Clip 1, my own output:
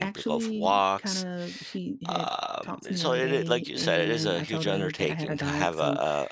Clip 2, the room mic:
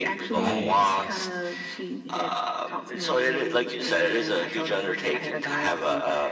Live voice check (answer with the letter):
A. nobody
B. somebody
B